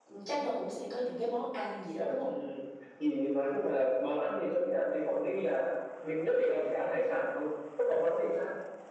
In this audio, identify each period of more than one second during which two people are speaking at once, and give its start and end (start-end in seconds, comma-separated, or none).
none